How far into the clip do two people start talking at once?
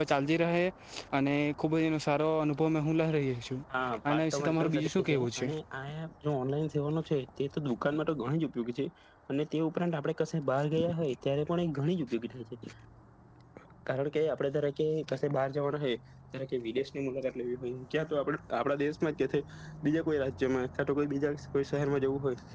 4.1 s

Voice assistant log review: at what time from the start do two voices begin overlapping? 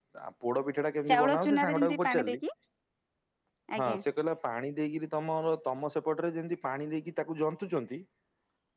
1.1 s

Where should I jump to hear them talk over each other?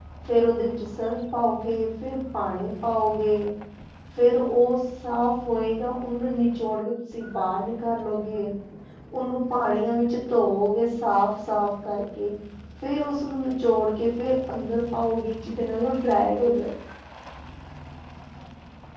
none

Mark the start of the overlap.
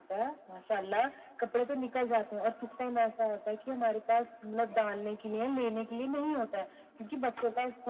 none

